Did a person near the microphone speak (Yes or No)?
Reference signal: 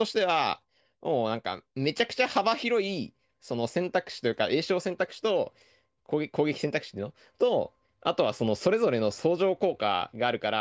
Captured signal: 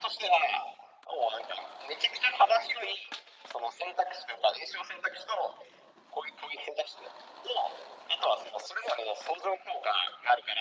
No